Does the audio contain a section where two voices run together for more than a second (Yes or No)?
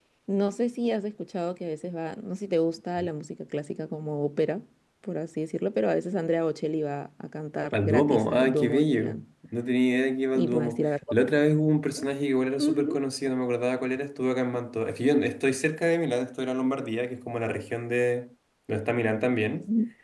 Yes